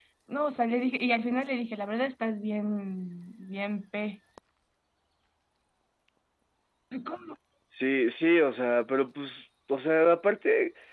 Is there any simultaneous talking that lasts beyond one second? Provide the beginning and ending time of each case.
none

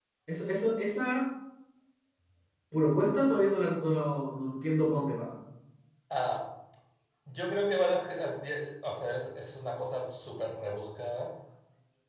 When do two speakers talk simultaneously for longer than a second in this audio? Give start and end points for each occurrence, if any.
none

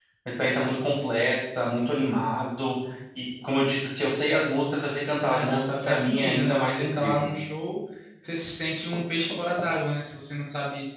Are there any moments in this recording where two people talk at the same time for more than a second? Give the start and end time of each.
5.2-7.3

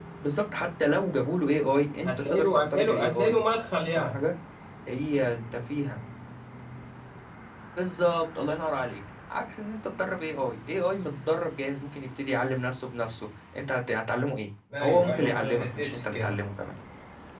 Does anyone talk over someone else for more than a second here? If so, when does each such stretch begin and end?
2.0-3.3, 14.8-16.4

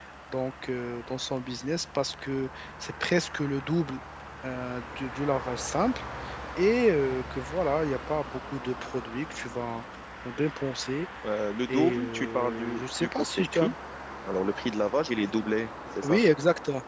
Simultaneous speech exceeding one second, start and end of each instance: 11.7-13.7

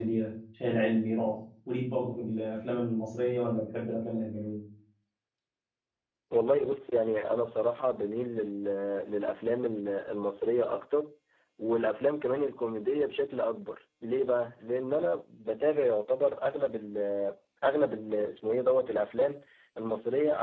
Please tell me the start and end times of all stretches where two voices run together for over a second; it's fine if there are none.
none

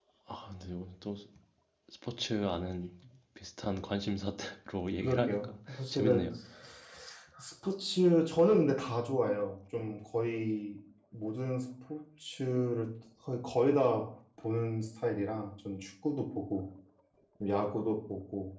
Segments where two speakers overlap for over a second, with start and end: 5.0-6.3

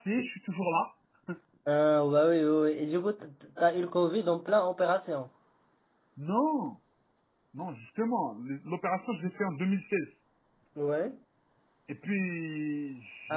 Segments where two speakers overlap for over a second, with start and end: none

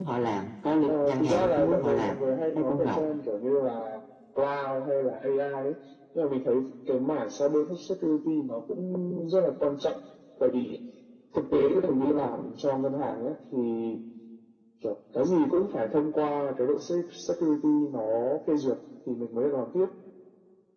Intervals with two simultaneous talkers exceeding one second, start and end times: 0.9-2.2

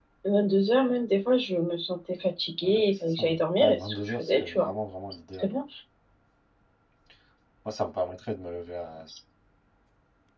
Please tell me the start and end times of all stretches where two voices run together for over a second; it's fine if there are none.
2.6-4.7

